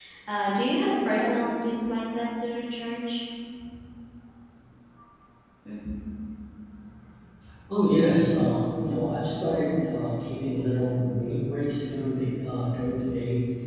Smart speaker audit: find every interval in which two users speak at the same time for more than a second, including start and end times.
none

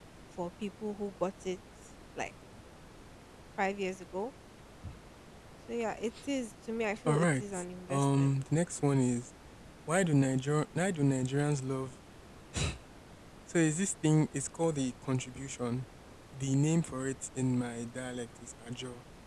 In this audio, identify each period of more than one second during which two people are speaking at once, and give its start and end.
7.1-8.3

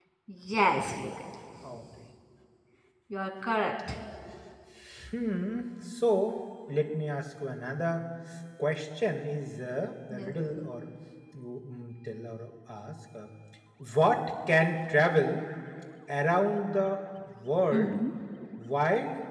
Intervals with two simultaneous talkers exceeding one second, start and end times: none

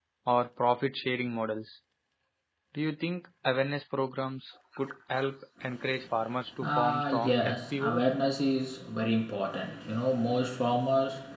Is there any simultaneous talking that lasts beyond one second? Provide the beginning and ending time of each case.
6.6-8.0

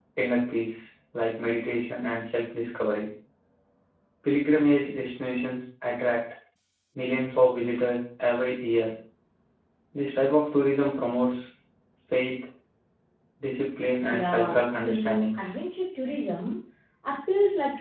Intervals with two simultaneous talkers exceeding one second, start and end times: 14.0-15.4

